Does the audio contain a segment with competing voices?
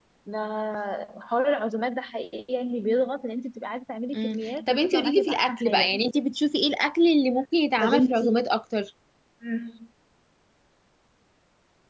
Yes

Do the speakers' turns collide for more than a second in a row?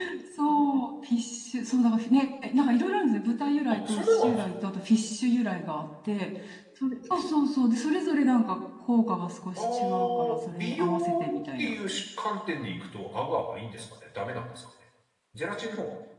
Yes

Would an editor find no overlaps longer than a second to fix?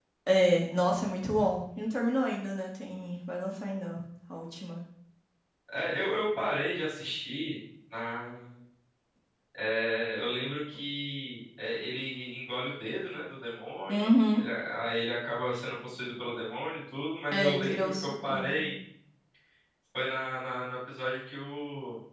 No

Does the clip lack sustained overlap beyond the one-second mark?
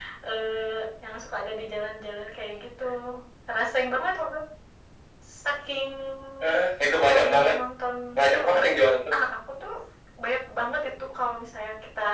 Yes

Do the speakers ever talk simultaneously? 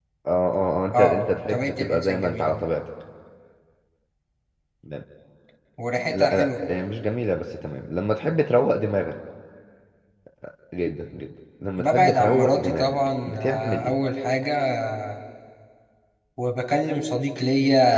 Yes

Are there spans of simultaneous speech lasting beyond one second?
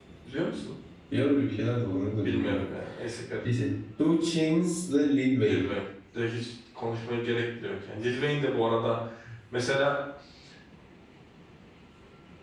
No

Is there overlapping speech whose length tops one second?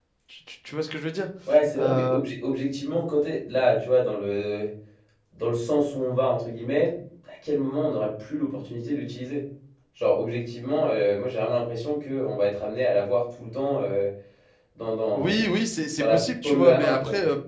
Yes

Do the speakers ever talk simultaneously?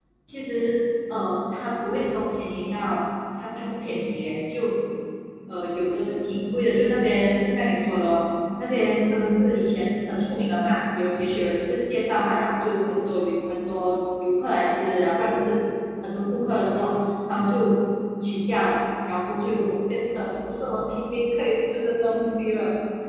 No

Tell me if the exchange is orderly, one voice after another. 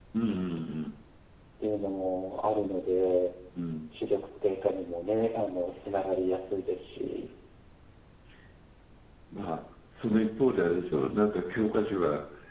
Yes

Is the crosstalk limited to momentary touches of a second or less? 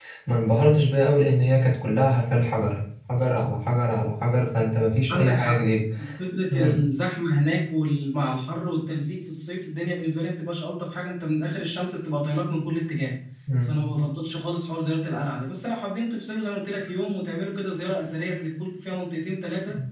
Yes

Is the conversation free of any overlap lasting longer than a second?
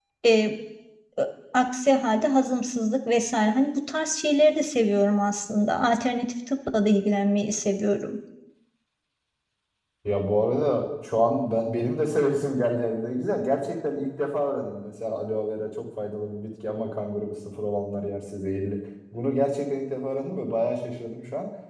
Yes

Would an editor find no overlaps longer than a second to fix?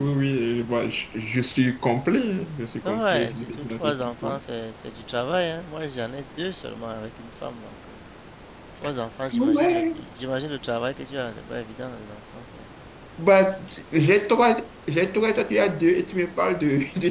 No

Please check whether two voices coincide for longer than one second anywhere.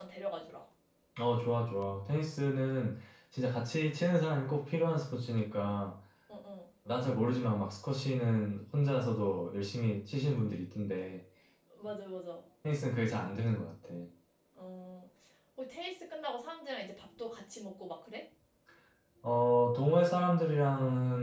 No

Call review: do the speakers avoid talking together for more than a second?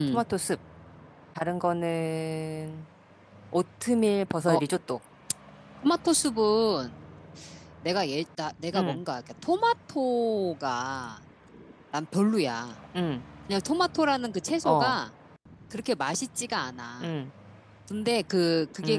Yes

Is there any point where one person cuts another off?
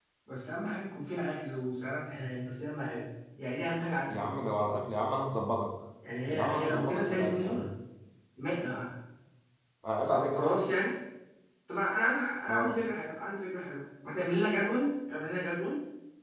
Yes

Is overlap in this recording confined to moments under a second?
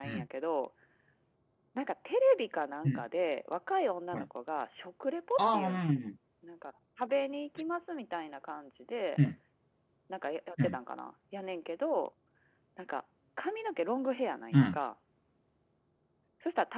Yes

